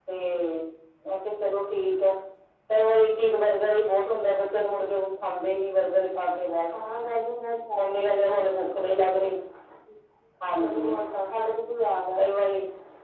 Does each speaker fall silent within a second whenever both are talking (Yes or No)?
Yes